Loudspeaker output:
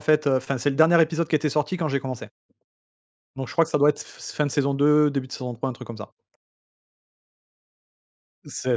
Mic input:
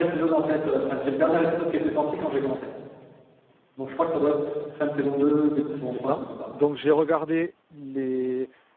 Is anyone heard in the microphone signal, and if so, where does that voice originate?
both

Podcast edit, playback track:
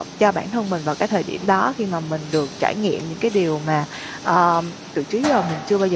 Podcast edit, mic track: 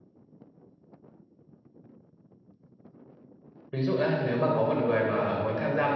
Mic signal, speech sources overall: user only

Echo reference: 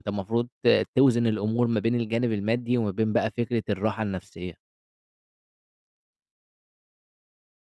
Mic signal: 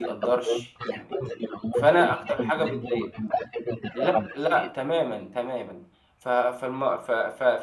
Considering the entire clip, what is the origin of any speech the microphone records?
both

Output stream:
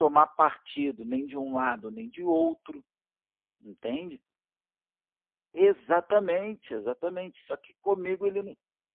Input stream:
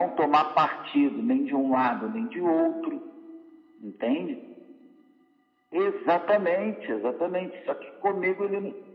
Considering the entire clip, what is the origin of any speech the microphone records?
echo only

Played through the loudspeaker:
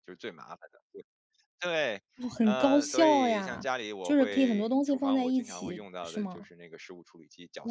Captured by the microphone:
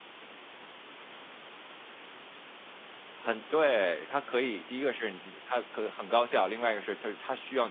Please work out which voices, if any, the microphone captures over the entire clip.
user only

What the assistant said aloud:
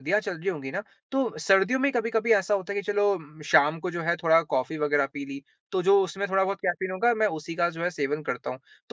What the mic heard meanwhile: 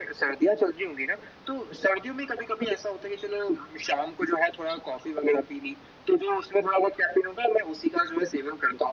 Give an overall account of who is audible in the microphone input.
echo only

